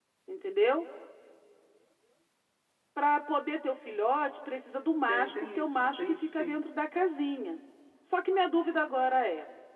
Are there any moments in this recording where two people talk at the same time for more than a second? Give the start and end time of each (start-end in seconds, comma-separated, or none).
5.1-6.6